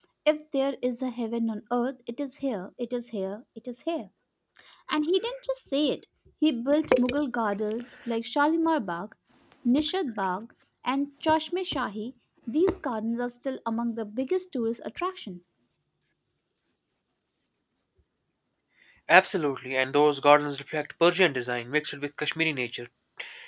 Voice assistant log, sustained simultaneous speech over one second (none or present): none